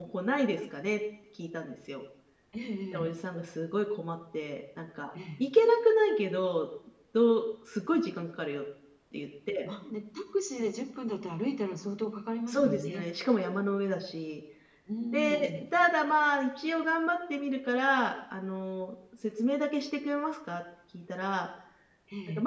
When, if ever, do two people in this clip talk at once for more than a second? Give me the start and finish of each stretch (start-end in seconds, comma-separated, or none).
none